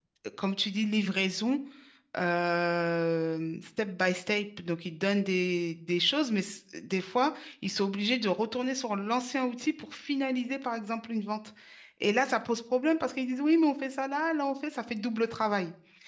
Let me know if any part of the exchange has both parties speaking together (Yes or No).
No